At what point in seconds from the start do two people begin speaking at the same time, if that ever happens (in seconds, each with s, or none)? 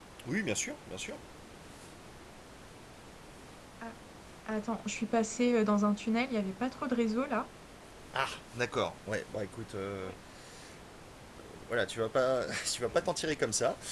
none